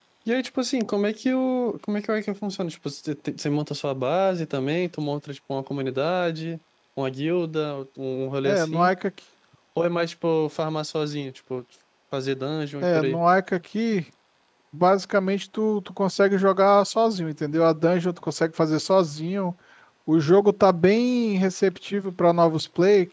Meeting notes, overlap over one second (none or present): none